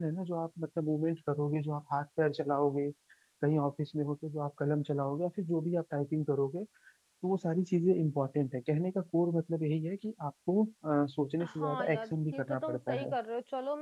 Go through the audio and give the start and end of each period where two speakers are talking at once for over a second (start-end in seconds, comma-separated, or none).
11.5-13.1